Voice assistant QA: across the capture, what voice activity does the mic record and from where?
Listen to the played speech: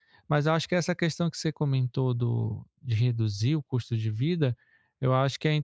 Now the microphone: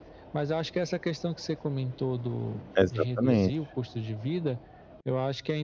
both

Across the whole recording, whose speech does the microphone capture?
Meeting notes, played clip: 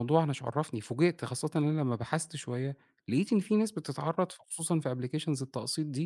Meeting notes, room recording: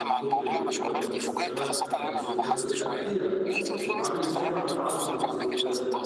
both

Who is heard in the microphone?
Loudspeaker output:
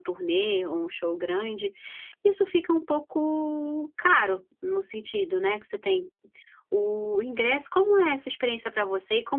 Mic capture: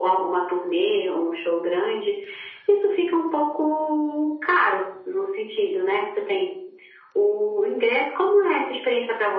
echo only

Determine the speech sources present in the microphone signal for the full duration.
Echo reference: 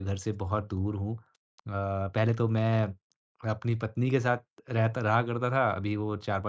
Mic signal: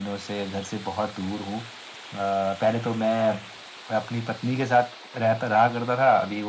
echo only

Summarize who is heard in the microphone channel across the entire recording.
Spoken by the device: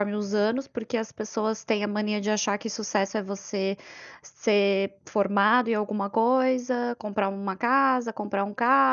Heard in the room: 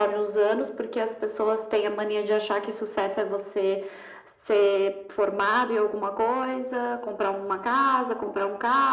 echo only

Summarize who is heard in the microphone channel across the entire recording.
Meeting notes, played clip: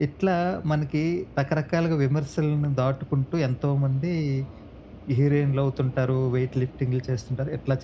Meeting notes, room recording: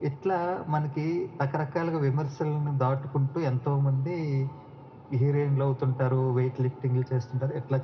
echo only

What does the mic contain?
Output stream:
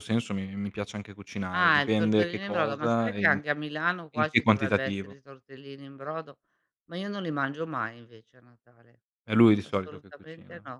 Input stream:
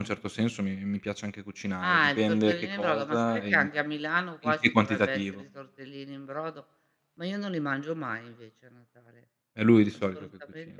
echo only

